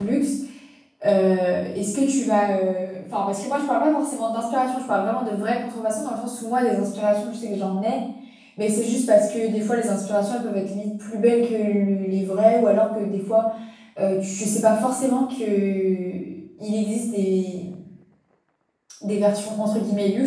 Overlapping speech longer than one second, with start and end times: none

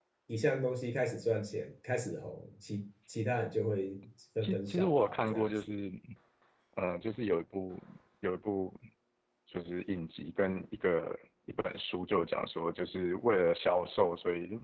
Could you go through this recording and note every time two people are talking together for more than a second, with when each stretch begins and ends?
4.4-5.7

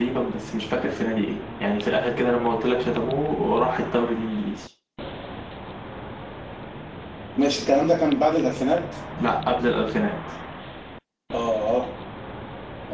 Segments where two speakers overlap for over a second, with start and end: none

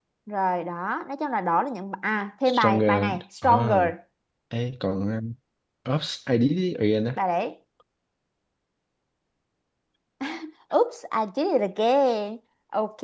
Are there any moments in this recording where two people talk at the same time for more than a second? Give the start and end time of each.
2.5-3.8

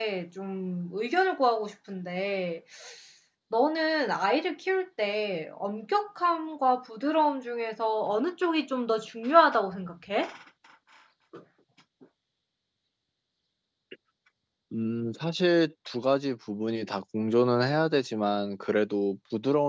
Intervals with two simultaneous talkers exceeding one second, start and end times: none

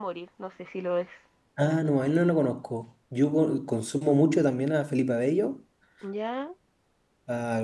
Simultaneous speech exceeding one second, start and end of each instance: none

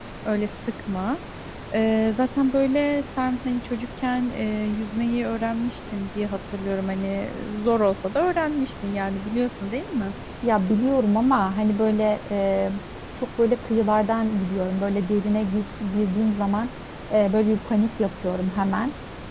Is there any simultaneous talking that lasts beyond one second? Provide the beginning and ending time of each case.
none

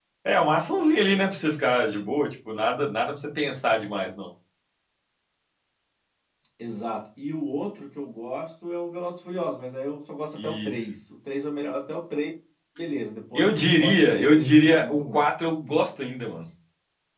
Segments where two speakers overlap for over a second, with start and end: 13.3-15.2

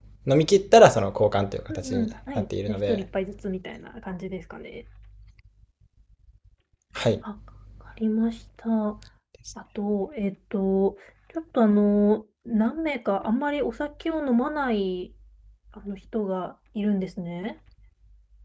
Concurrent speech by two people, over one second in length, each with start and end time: 1.7-3.0

